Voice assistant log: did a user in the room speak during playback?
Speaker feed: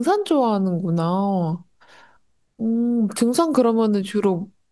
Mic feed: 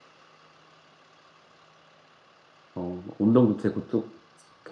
Yes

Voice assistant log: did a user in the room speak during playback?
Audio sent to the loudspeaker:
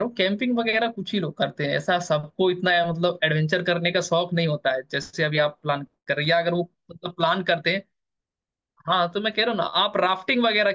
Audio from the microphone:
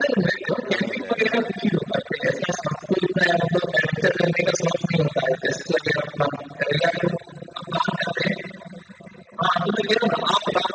Yes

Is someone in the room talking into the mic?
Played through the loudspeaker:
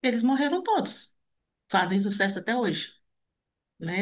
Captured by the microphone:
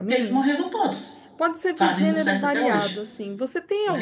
Yes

